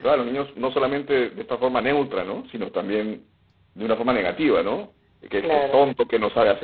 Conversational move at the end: listening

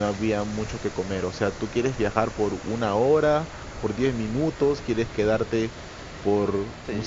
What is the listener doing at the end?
taking over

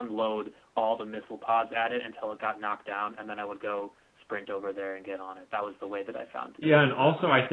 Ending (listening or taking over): taking over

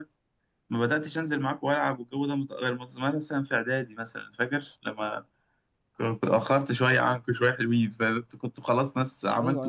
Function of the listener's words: taking over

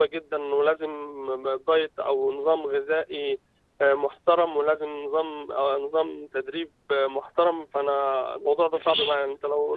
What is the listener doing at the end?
taking over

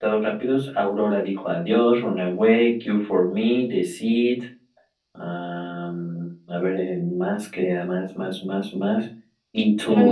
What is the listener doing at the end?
listening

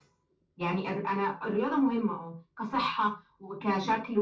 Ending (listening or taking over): listening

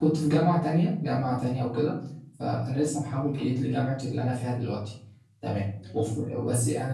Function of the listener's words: listening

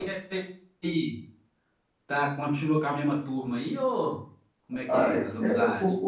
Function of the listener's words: taking over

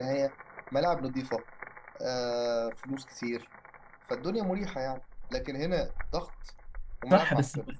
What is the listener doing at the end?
taking over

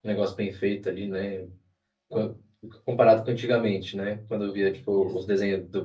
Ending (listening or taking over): listening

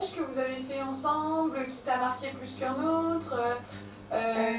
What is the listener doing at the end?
listening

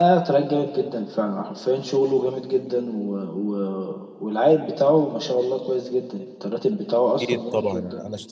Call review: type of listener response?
taking over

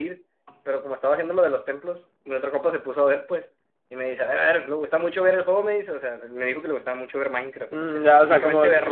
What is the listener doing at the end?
taking over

